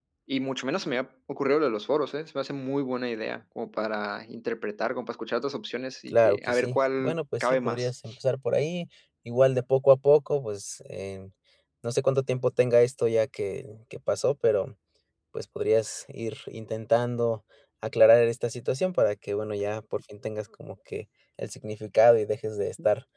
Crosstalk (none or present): present